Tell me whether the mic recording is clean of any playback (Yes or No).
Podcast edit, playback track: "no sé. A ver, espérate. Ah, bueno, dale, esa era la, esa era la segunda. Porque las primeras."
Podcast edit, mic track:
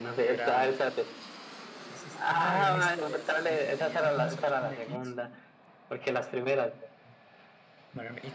No